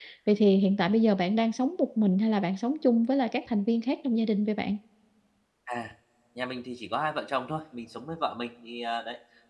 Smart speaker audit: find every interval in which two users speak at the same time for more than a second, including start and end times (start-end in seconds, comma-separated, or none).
none